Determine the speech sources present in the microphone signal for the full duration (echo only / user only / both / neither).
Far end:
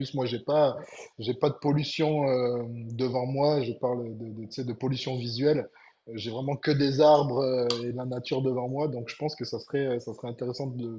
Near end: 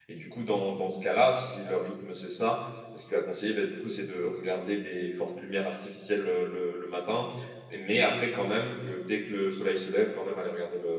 user only